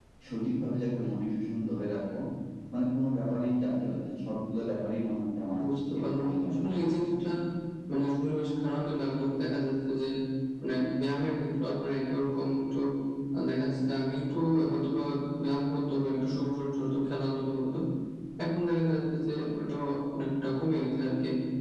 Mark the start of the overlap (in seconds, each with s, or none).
6.0 s